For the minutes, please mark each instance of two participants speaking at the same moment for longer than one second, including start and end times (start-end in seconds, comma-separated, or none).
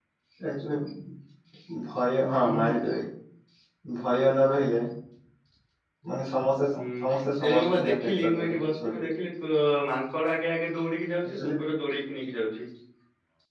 7.4-9.1